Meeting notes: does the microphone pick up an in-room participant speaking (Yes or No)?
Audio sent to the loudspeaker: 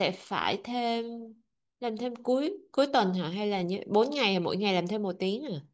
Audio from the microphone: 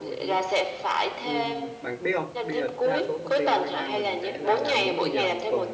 Yes